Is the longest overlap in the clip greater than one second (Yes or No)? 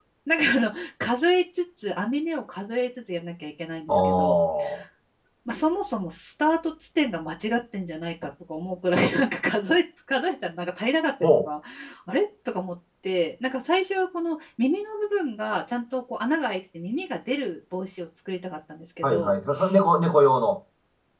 No